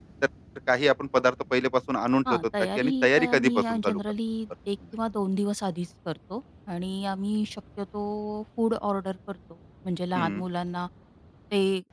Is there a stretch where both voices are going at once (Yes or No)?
Yes